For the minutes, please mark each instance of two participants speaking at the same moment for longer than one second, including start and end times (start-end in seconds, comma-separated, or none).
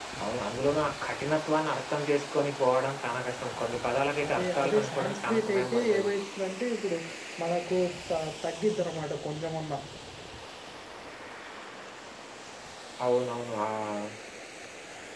4.3-5.8